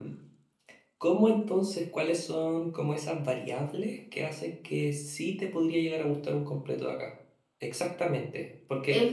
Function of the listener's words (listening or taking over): listening